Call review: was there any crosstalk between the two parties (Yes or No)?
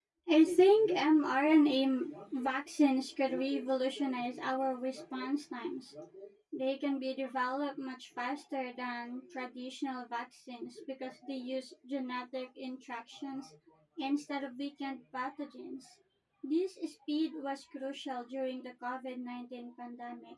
No